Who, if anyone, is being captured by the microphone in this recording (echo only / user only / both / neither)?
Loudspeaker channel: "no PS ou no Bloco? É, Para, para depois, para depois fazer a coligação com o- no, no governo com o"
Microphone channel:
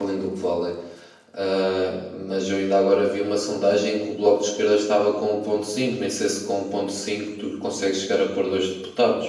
user only